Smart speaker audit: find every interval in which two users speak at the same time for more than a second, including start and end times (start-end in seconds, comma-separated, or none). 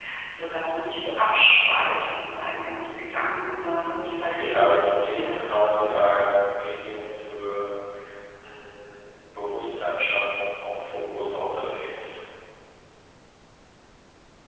4.2-6.1